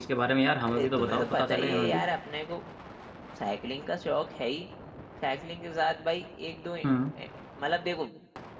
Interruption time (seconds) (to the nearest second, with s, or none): 1 s